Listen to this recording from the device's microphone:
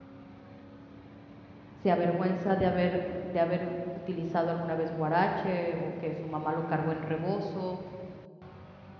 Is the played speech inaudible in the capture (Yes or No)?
Yes